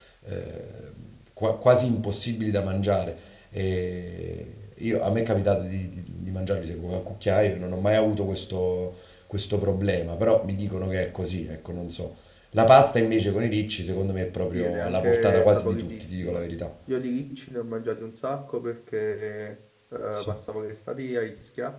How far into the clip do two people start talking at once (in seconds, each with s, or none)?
14.5 s